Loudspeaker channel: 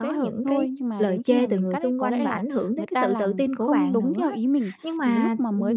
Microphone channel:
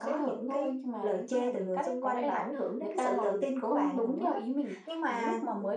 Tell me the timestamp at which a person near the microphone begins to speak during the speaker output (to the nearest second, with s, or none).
none